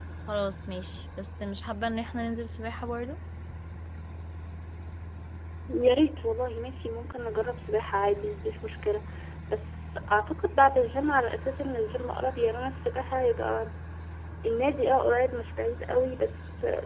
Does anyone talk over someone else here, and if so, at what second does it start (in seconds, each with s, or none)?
none